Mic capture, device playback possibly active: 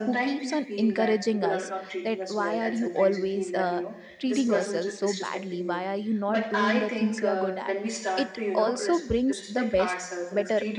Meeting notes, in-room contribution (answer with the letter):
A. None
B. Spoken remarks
B